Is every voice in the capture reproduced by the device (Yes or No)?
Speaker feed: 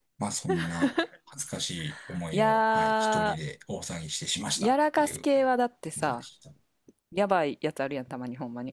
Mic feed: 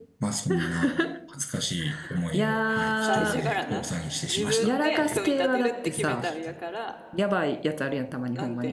No